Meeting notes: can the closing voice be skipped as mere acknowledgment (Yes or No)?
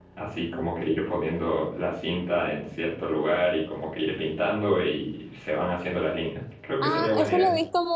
No